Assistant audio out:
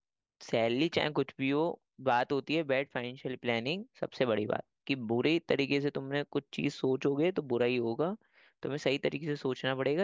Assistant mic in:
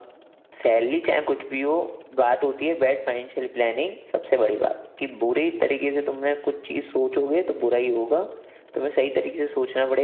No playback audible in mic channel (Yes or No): No